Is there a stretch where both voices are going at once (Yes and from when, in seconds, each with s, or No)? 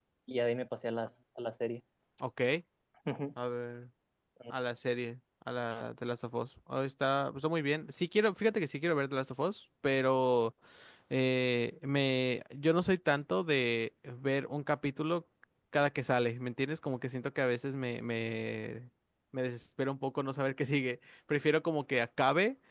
No